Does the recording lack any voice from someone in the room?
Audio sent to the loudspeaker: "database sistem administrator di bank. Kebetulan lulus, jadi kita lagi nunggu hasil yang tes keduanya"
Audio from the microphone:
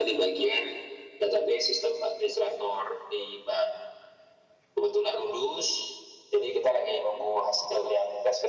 Yes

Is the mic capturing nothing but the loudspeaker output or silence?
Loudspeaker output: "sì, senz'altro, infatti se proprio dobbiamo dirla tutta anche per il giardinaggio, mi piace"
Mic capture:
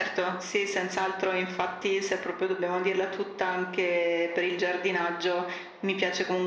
Yes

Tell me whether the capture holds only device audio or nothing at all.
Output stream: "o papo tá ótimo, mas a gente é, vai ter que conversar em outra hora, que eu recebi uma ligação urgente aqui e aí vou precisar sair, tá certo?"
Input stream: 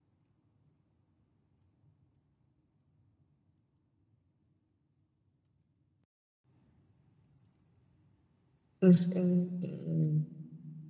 No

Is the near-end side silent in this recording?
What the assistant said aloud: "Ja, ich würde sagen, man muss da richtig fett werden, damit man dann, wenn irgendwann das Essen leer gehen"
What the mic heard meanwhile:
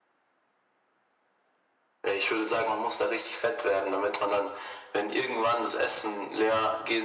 Yes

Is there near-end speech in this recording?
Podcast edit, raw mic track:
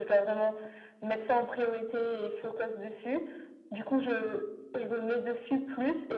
No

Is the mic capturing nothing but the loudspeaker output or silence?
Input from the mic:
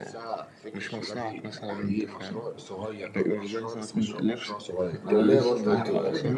No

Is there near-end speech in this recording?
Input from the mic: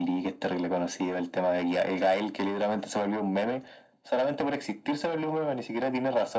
No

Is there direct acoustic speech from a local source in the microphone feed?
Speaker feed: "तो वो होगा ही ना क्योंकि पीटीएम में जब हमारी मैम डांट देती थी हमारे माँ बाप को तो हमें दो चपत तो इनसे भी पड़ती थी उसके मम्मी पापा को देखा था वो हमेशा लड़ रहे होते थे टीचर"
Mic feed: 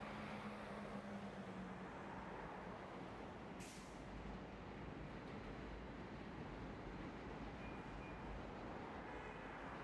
No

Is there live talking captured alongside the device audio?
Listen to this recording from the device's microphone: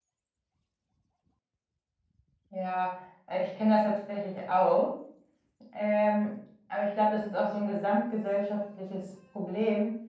No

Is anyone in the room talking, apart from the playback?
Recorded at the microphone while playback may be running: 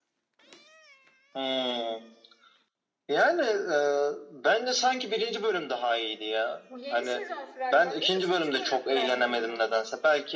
Yes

